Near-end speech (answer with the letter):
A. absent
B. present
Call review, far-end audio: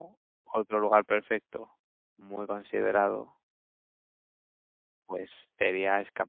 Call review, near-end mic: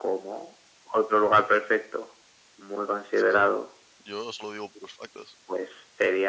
B